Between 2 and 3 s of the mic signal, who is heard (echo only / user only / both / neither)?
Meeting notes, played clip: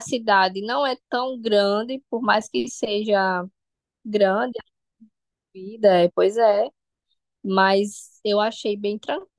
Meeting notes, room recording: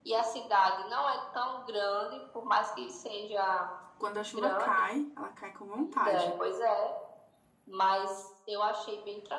echo only